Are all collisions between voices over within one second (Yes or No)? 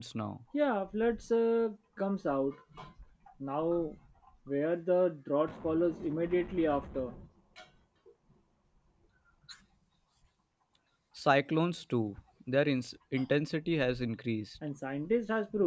Yes